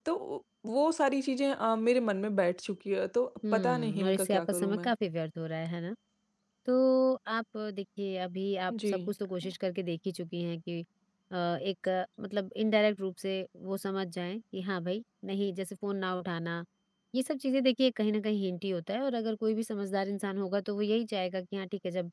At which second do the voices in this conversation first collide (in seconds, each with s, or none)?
3.5 s